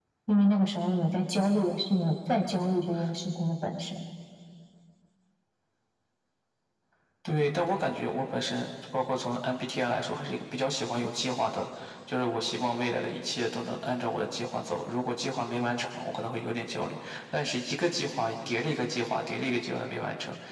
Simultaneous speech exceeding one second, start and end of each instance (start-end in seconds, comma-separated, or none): none